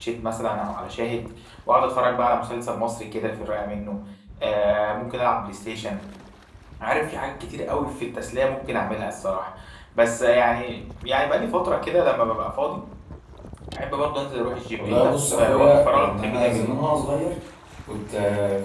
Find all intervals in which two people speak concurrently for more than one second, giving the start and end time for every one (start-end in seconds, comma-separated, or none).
14.8-16.7